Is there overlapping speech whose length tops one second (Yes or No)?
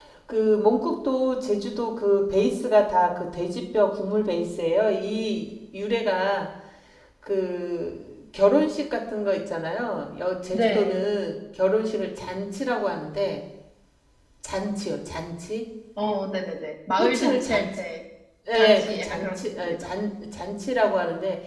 Yes